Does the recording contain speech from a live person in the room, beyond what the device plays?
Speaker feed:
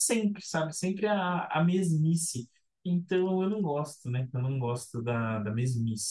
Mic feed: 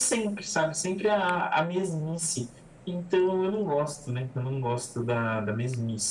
No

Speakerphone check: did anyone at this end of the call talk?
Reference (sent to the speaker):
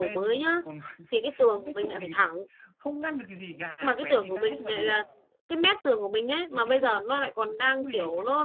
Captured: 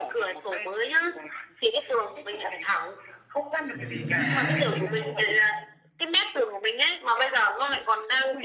Yes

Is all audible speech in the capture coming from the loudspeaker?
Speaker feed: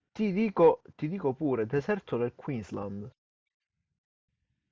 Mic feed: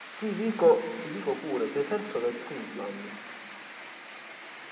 Yes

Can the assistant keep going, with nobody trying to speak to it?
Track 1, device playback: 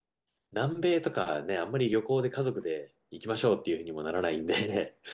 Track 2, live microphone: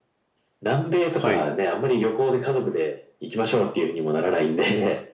No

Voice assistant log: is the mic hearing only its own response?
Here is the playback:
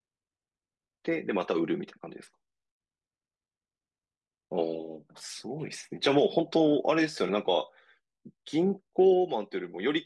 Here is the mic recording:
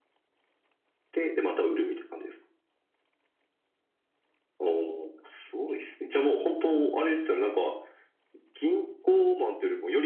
Yes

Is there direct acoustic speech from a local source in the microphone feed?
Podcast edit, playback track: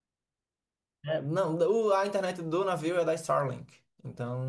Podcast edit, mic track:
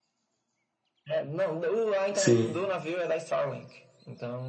Yes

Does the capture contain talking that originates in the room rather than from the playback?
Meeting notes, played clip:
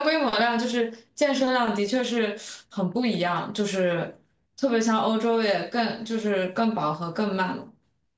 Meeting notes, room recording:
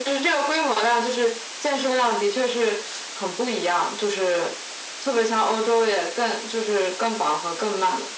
No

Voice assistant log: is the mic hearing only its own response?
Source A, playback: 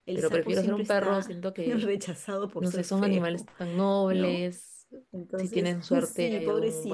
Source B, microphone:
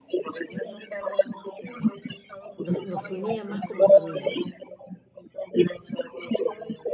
No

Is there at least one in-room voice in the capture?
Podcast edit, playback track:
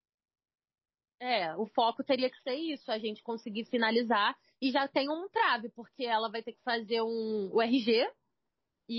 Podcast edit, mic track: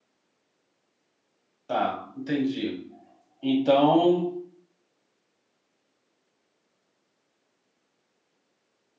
Yes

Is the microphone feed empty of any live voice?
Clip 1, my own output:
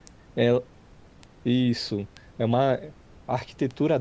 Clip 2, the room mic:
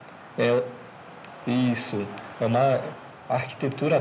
Yes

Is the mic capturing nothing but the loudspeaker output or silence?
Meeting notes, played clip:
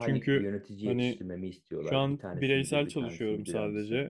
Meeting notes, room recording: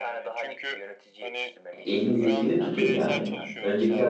No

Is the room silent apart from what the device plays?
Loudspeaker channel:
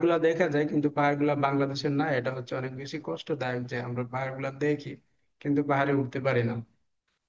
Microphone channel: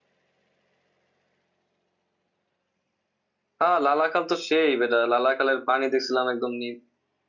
No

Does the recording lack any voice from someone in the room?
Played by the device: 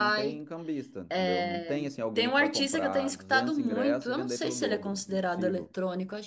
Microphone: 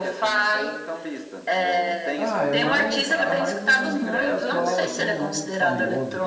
No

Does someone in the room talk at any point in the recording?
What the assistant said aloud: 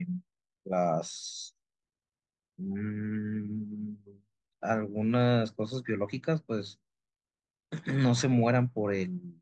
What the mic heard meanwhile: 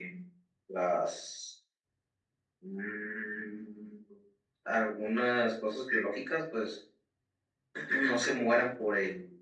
No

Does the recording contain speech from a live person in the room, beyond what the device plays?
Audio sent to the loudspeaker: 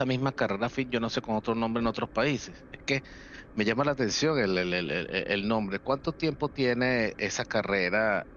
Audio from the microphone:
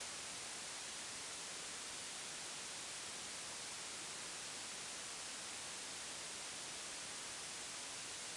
No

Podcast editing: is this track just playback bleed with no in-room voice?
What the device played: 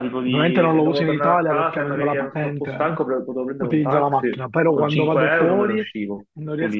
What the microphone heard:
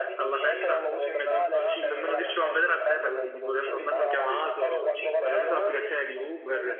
No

